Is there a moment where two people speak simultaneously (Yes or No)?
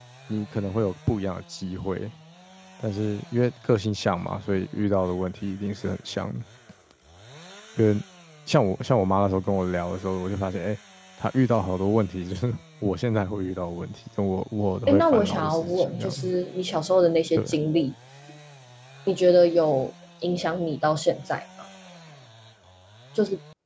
Yes